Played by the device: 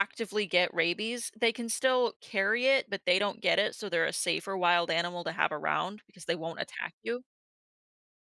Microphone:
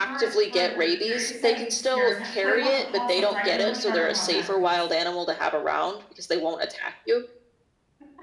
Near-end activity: present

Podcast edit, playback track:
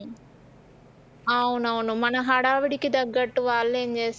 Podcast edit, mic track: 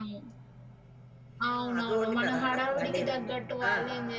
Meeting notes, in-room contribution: present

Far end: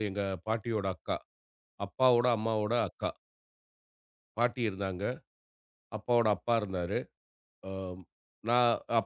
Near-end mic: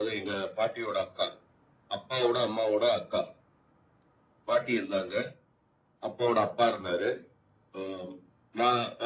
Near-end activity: none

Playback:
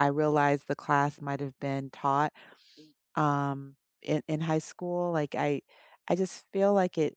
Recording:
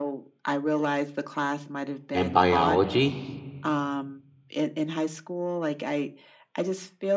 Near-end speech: present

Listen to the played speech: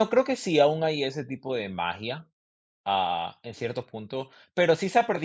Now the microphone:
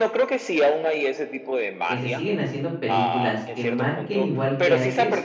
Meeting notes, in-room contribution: present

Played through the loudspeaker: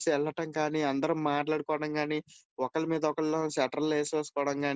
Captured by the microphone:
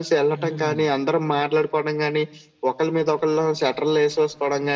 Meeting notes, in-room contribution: present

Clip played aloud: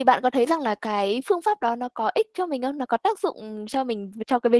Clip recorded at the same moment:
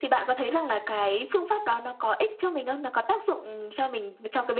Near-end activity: none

